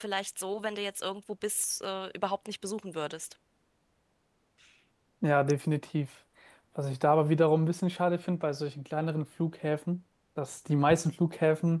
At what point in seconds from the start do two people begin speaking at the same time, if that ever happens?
none

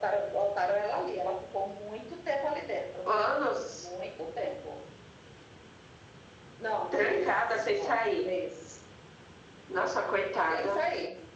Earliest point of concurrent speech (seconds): 7 s

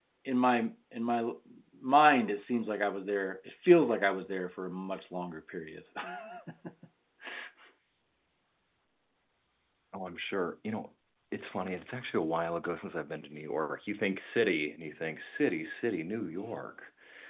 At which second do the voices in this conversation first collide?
none

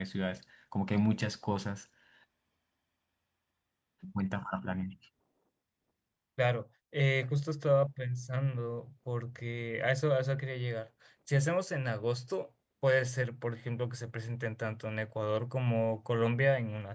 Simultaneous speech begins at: none

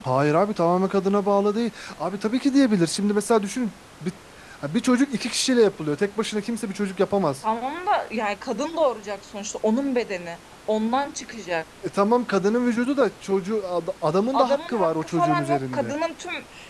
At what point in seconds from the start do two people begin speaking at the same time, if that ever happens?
14 s

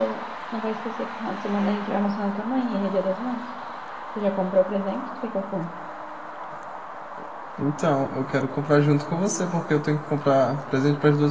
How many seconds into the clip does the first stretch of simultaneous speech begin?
none

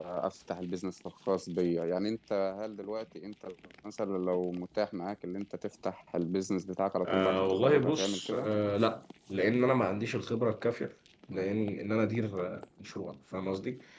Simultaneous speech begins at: 7 s

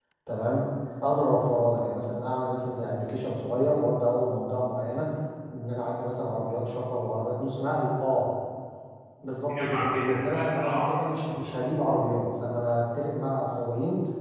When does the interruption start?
10 s

